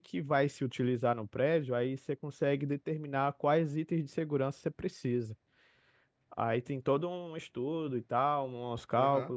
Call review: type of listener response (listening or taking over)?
taking over